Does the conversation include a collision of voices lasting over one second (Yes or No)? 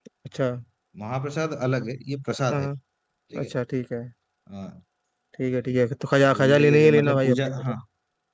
Yes